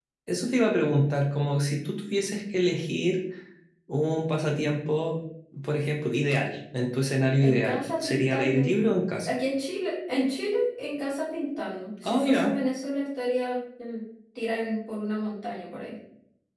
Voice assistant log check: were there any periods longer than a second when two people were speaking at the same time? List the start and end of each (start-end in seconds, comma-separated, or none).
7.4-8.7